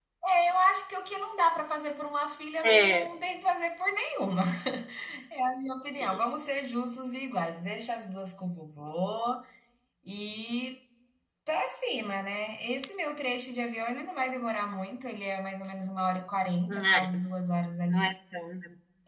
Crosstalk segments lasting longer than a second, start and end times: none

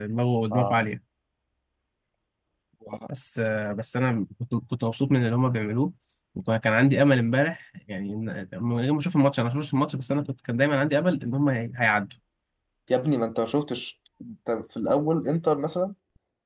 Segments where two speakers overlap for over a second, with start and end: none

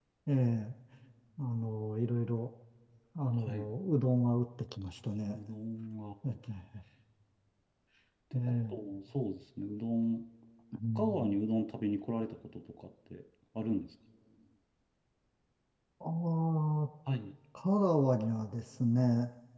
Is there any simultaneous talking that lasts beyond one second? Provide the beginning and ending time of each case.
none

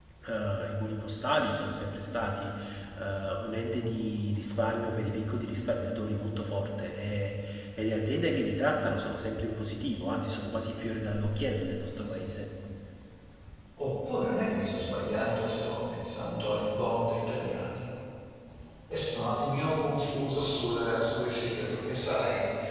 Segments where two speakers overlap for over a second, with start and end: none

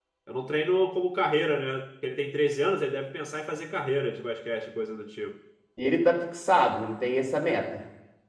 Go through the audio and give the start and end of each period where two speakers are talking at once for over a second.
none

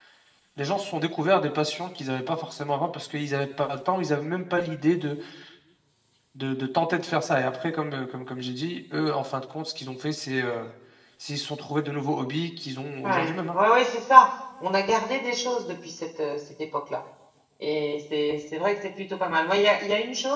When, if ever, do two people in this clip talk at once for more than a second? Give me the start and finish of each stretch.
none

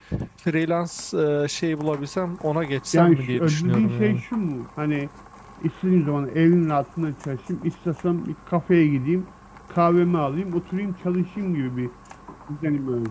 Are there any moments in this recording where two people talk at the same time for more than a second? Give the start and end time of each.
2.9-4.2

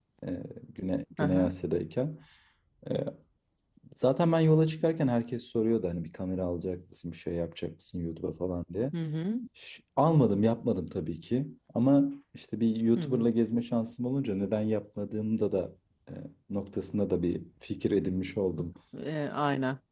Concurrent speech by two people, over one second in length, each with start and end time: none

